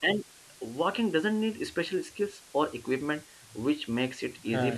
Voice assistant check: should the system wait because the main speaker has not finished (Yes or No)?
Yes